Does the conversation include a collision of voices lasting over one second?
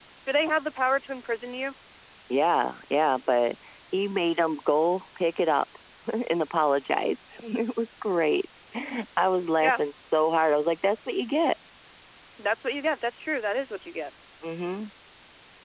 No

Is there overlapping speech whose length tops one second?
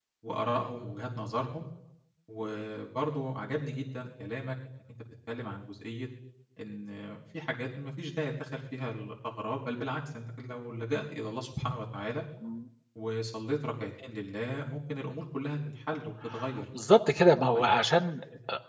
No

